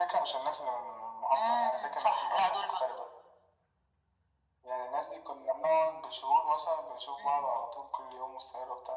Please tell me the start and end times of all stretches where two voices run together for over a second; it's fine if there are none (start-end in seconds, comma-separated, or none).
1.4-2.7